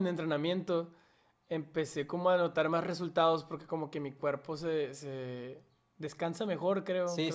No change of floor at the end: No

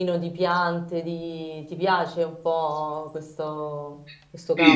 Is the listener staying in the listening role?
No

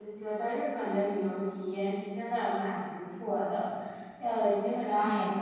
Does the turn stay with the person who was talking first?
Yes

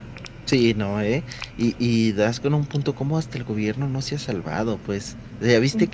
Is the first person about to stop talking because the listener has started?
No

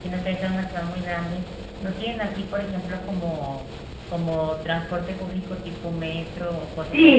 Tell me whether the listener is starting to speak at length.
Yes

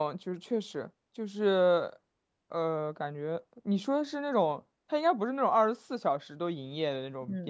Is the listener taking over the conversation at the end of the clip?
Yes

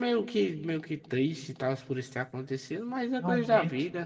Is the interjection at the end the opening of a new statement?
Yes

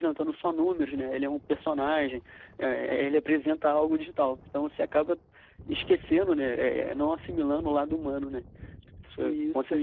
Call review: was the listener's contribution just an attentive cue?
No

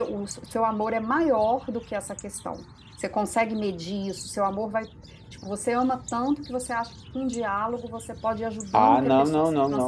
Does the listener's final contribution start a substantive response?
Yes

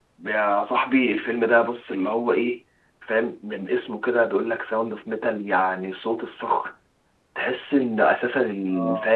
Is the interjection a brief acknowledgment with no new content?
Yes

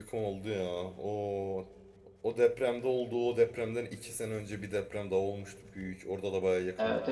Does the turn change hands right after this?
Yes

